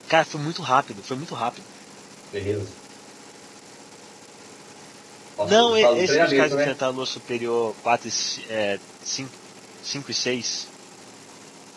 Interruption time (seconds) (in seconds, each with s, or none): 5.4 s